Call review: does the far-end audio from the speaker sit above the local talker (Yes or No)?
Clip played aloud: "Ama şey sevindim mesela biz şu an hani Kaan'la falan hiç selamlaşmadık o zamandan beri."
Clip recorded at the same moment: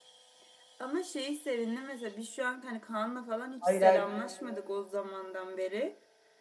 No